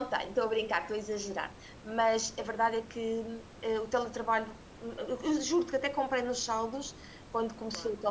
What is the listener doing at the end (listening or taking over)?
listening